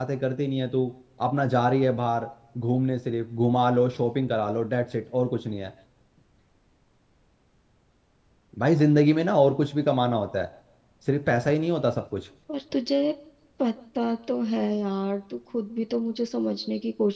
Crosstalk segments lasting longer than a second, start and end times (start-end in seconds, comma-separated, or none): none